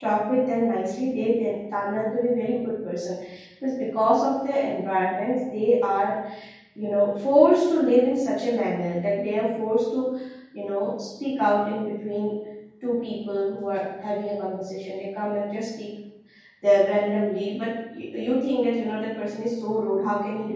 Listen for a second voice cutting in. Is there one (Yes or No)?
No